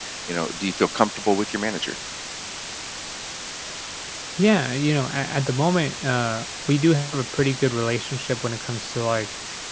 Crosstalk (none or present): none